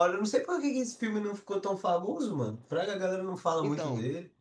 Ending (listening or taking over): taking over